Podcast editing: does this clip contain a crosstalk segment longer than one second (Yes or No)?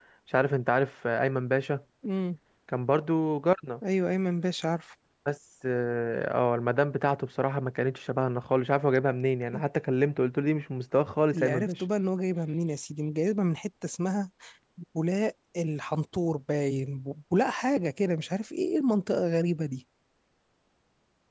No